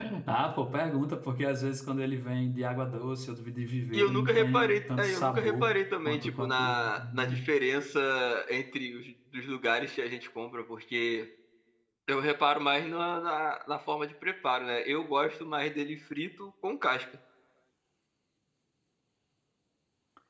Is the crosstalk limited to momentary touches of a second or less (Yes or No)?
No